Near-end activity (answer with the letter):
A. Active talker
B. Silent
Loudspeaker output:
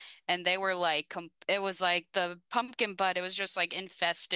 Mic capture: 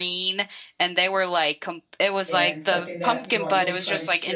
A